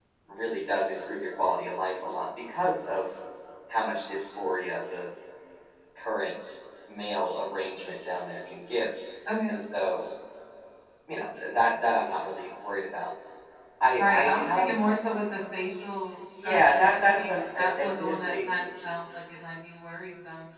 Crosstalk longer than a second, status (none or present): present